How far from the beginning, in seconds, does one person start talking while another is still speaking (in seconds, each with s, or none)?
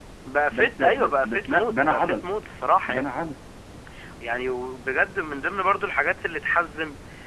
0.5 s